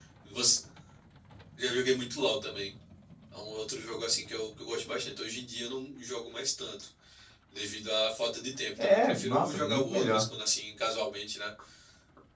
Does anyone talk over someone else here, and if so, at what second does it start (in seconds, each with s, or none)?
8.8 s